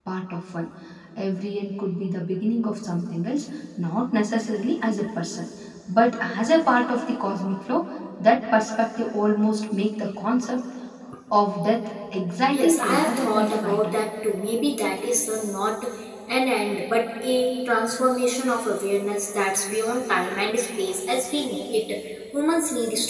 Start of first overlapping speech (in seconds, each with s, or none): 12.5 s